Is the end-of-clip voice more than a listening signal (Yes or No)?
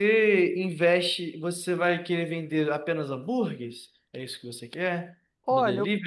Yes